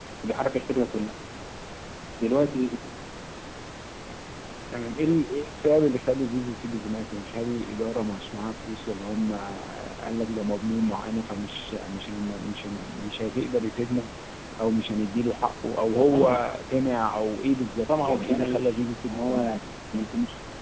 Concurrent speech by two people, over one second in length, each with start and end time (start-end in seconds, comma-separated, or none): 17.9-19.5